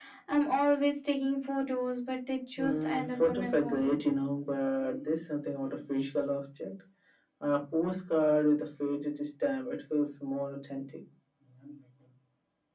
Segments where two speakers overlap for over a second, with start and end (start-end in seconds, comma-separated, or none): 2.6-4.0